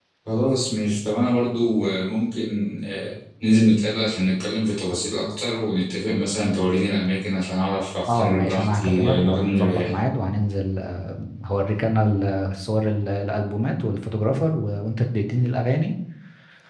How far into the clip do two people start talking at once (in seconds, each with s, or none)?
8.0 s